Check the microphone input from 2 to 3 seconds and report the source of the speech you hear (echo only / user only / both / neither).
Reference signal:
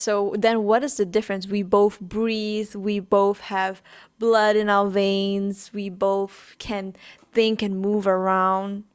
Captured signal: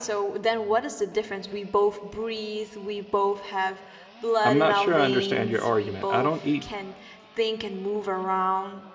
echo only